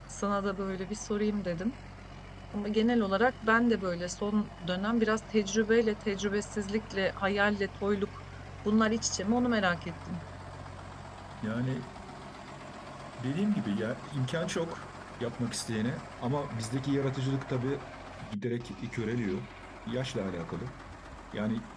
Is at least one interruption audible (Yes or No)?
No